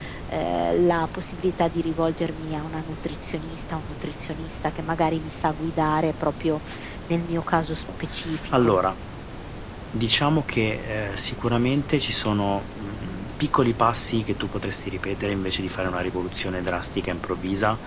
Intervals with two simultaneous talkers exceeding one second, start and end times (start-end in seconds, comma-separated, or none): none